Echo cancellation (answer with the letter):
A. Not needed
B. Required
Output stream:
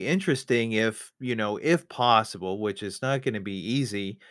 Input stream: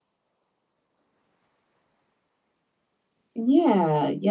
A